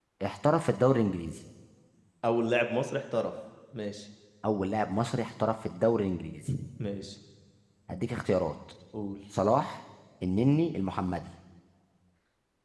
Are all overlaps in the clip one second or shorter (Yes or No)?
Yes